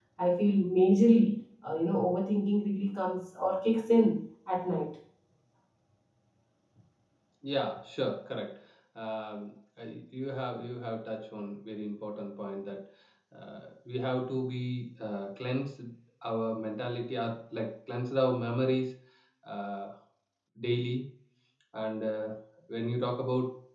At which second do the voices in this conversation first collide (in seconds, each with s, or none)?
none